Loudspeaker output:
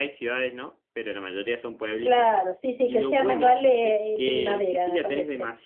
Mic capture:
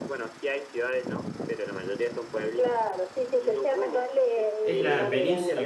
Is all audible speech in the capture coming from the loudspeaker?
No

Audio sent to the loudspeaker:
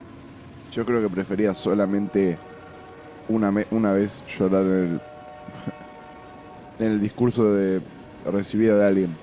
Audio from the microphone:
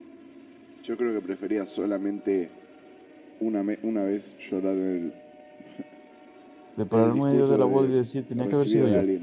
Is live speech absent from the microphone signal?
No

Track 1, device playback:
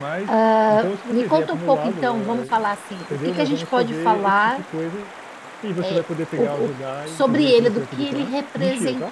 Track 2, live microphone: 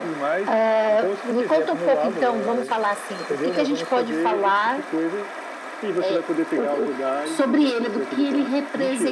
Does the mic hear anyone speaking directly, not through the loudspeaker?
No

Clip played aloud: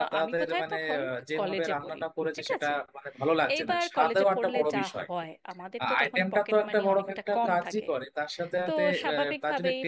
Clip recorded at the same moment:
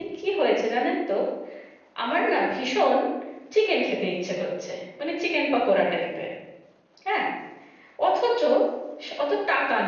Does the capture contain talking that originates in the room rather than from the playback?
Yes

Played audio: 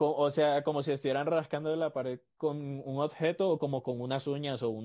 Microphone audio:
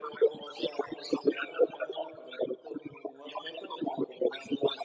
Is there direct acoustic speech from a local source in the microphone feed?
No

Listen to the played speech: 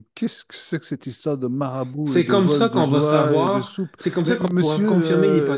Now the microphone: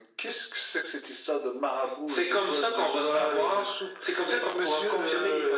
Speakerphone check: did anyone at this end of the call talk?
No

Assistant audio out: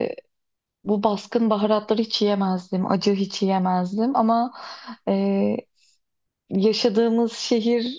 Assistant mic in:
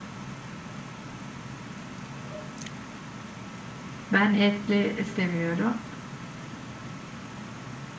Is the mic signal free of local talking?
No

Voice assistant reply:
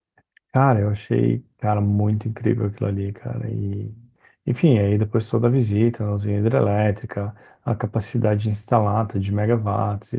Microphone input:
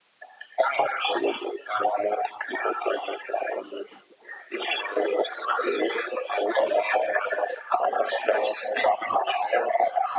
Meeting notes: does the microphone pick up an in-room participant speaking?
No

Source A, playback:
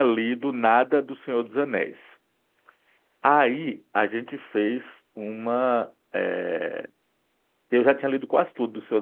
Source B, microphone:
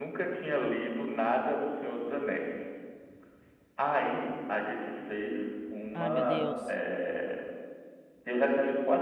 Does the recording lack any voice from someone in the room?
No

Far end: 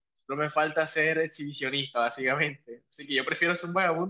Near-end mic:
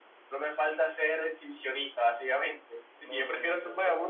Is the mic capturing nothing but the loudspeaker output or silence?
No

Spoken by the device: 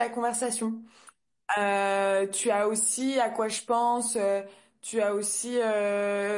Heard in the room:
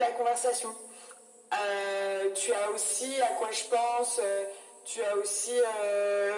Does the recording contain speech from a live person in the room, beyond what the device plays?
No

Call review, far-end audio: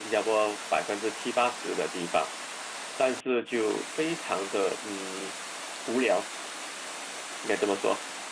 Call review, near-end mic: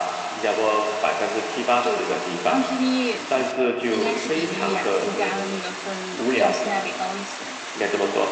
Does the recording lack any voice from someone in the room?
No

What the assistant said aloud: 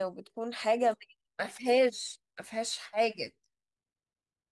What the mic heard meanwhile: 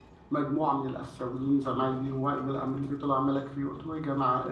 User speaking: Yes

